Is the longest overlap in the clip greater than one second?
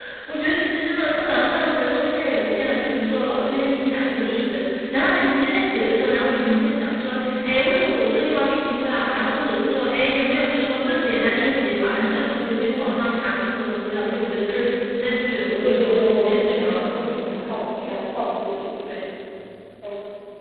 Yes, from 15.6 s

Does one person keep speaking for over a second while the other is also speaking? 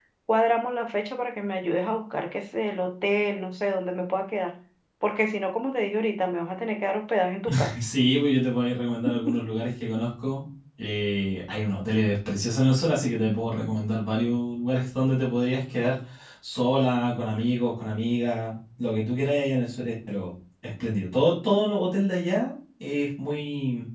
No

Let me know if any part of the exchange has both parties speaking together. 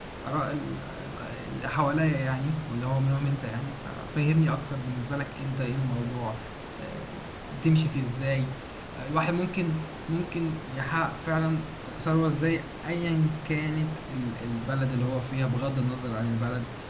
No

